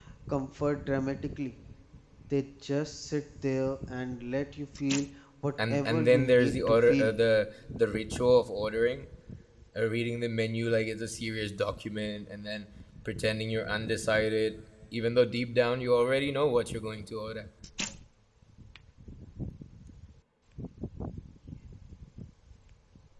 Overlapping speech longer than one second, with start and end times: 5.7-7.1

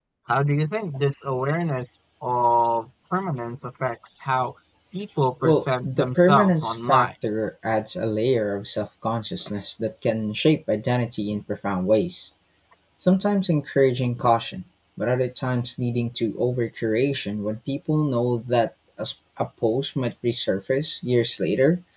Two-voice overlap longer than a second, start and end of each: 5.4-7.1

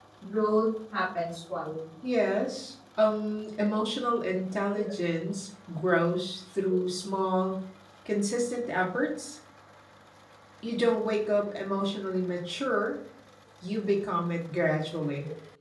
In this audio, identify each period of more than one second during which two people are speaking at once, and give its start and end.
none

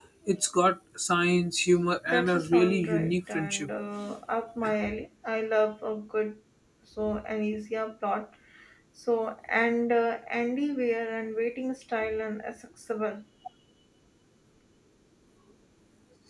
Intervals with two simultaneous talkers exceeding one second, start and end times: 2.1-3.7

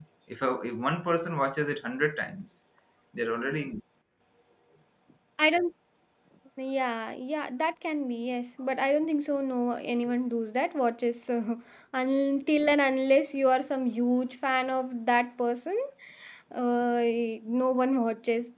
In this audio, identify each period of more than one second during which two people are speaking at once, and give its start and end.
none

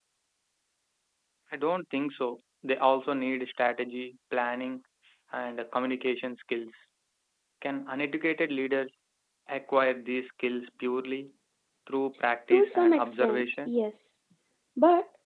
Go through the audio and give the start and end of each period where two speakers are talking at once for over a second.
12.5-13.7

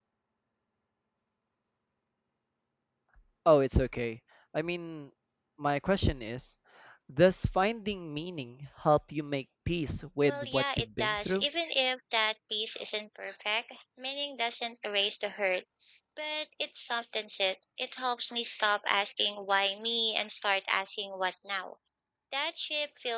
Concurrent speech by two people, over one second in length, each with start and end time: 10.2-11.4

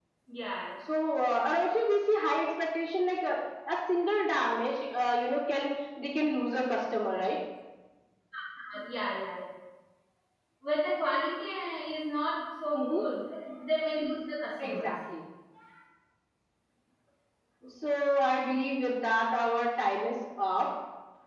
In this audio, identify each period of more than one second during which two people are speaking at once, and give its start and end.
none

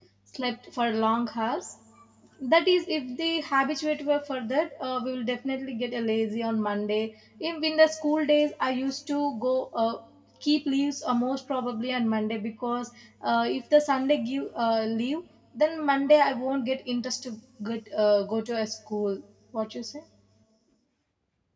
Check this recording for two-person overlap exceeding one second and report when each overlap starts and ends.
none

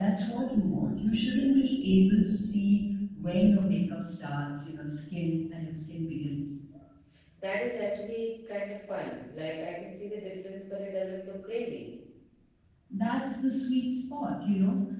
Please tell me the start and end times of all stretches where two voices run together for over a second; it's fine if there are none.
none

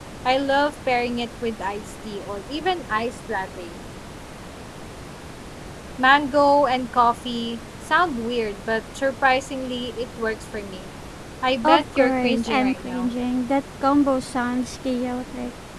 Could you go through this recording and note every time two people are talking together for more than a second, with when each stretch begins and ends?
11.6-13.1

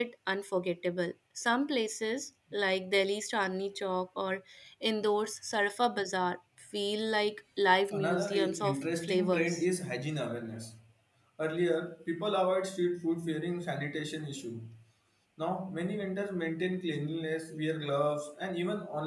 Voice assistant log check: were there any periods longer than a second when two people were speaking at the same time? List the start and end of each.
7.9-9.6

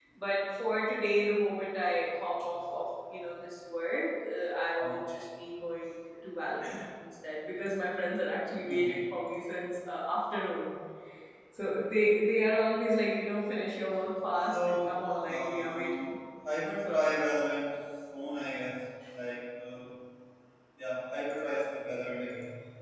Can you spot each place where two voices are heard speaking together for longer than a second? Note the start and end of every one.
14.5-16.1

